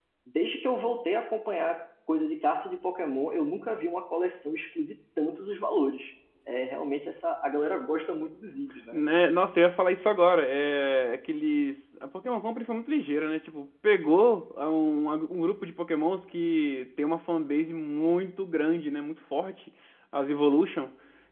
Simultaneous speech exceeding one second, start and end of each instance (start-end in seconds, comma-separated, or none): none